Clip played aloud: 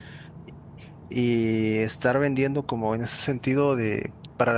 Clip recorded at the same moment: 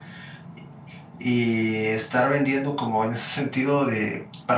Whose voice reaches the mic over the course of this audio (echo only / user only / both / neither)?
echo only